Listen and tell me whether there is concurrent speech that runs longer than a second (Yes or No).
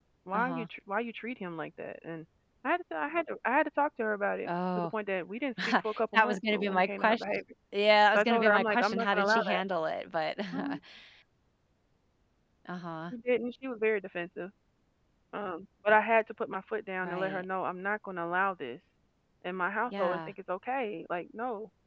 Yes